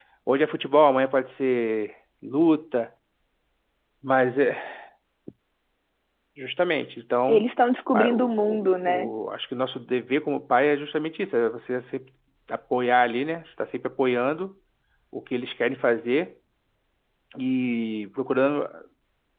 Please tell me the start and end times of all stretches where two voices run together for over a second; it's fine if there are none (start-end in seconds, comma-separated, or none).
7.9-9.1